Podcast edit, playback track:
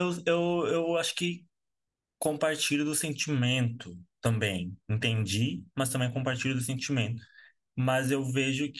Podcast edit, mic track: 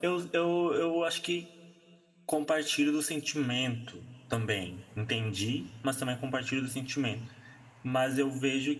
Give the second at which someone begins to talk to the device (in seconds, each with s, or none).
none